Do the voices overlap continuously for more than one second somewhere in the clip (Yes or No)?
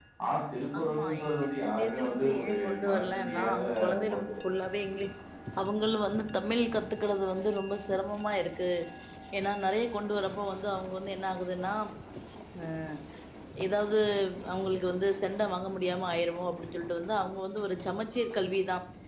Yes